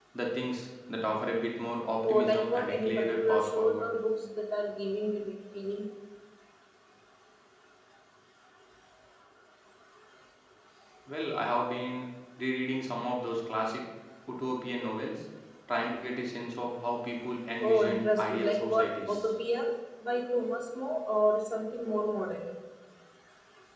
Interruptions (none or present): present